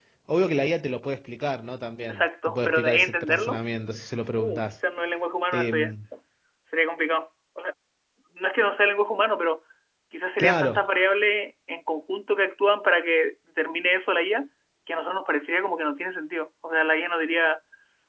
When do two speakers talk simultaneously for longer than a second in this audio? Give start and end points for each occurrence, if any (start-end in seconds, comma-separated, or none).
2.1-3.6